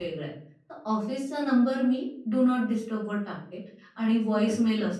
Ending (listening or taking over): listening